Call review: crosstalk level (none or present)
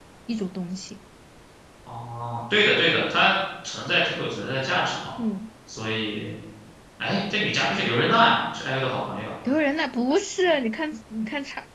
none